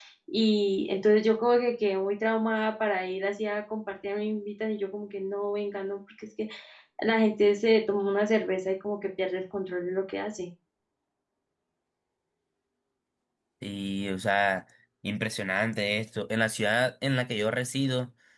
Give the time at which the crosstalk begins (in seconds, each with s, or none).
none